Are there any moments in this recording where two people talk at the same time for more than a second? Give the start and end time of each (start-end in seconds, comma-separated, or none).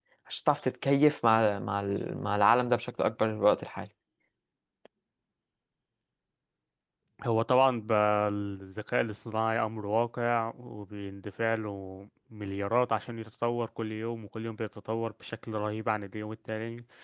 none